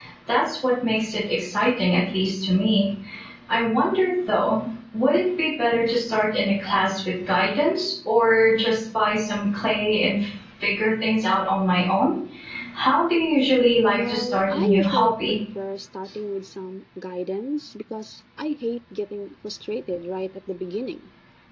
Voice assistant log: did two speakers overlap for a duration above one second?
Yes, from 13.9 s

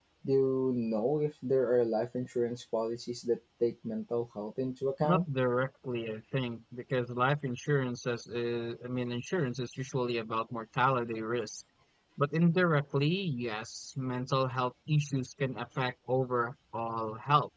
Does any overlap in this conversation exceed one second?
No

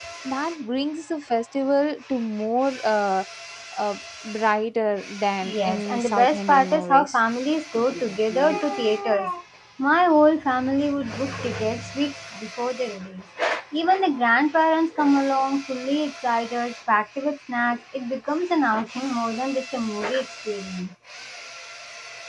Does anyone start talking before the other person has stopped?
Yes, from 5.4 s

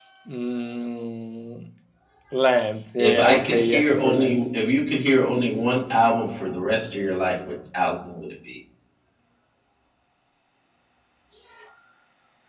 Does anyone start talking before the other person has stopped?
Yes, from 3.0 s

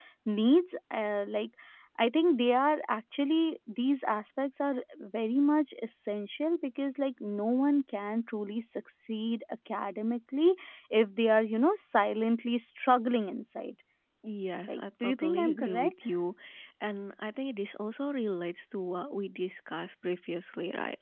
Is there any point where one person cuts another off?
Yes, from 14.7 s

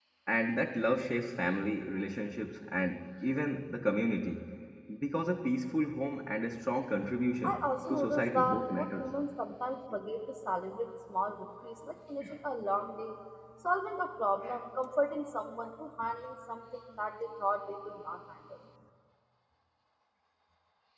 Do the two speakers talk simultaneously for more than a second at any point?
Yes, from 7.4 s

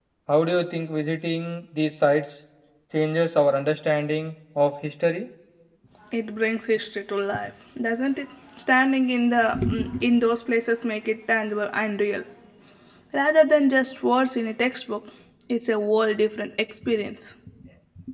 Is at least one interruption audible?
No

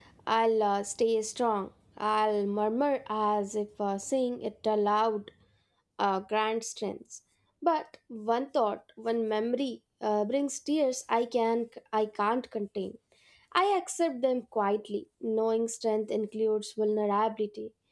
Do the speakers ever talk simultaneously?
No

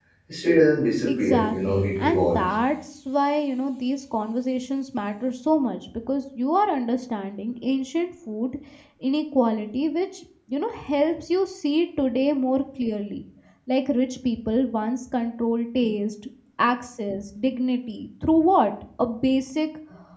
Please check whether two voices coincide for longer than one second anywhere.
Yes, from 1.1 s

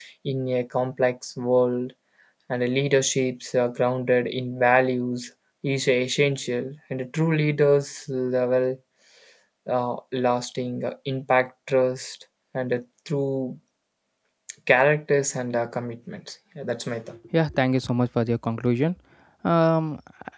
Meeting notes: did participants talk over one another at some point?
No

